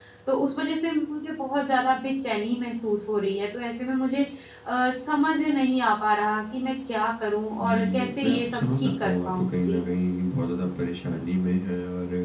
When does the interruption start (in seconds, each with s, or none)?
7.6 s